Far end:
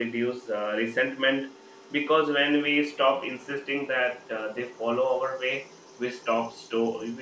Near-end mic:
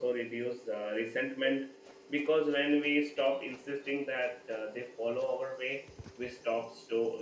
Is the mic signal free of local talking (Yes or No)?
Yes